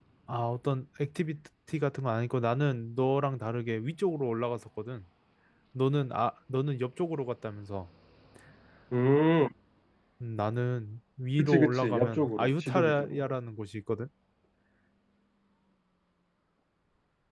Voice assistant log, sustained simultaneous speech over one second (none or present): present